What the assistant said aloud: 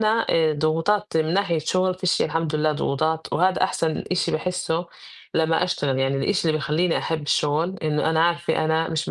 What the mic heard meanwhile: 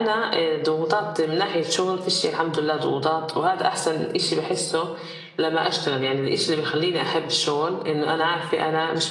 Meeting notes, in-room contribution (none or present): none